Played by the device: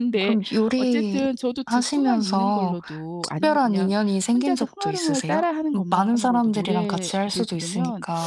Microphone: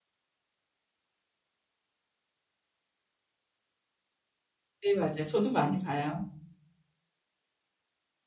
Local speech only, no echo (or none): 네 맞아요. 저도 많이 봐요.